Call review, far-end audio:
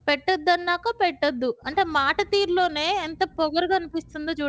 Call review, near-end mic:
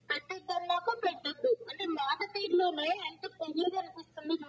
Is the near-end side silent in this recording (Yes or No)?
Yes